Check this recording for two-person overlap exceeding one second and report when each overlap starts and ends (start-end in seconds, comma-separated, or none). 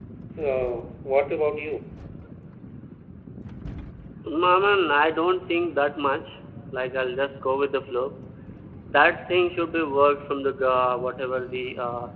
none